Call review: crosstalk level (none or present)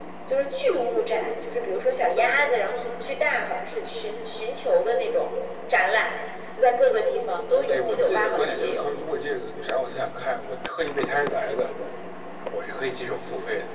present